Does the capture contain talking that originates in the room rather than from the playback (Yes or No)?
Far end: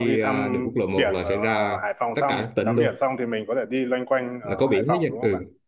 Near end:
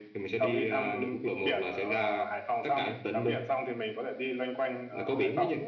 No